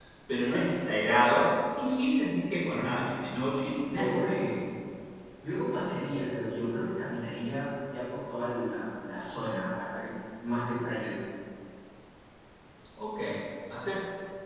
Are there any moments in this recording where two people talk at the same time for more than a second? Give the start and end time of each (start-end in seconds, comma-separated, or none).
2.8-4.1